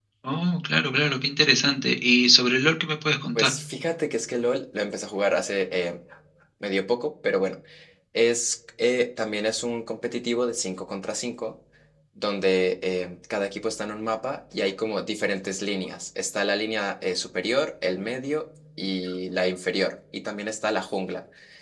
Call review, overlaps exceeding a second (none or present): none